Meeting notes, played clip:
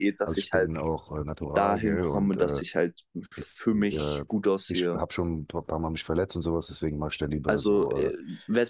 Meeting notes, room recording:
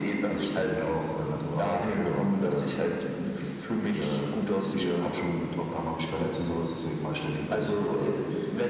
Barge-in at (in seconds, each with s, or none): none